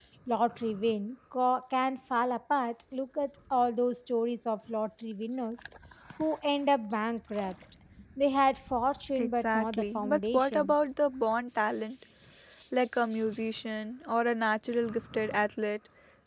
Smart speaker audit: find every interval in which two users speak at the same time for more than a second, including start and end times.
9.2-10.7

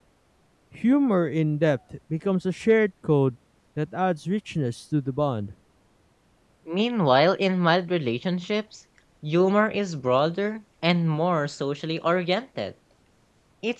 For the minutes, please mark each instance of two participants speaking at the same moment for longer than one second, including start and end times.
none

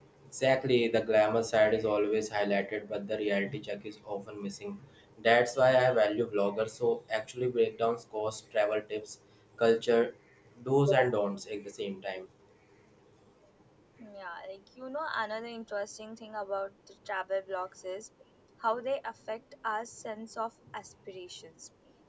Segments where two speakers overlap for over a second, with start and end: none

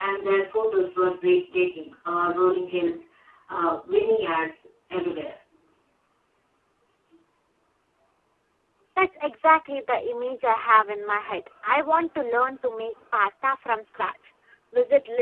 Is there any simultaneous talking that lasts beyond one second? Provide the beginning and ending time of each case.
none

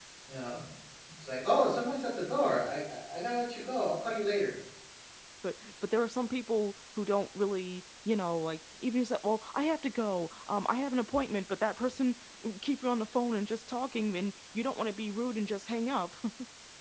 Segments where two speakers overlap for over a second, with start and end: none

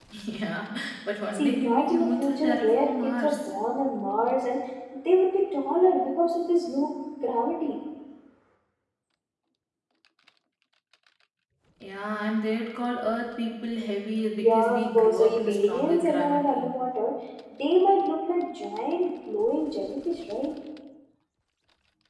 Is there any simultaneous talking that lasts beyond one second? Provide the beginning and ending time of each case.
1.3-3.5, 14.4-16.7

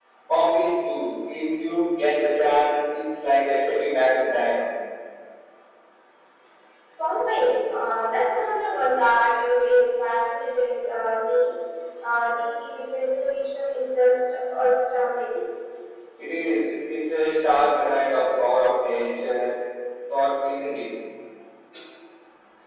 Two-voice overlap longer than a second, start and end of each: none

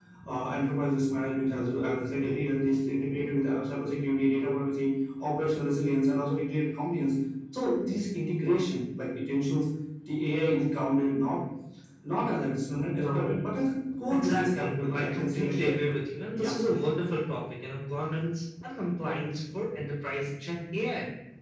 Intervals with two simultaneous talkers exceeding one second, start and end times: 14.1-15.7

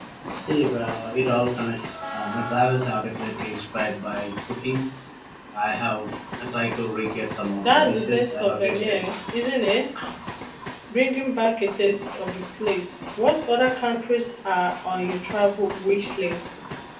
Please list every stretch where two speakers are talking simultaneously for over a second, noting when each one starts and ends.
7.6-9.0

